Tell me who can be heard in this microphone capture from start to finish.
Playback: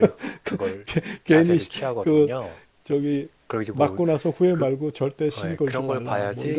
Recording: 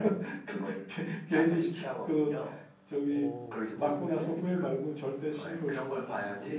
both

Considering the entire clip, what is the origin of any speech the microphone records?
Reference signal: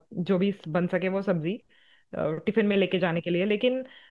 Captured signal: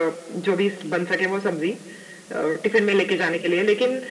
echo only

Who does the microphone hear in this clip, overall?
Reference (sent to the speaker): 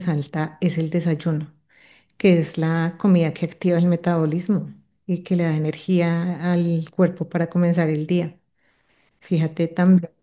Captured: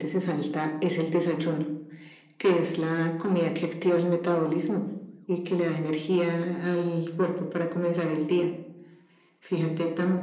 echo only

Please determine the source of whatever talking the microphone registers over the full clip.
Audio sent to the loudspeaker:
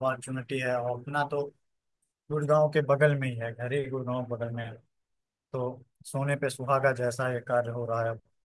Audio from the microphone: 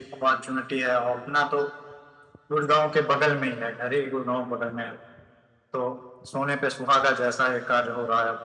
echo only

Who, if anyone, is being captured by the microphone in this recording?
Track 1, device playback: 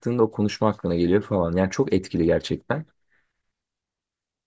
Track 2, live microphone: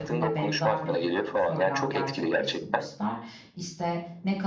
both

